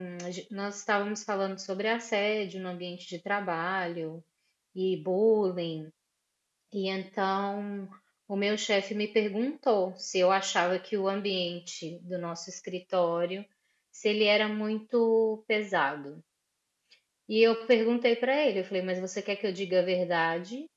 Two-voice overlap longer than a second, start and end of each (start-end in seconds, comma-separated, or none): none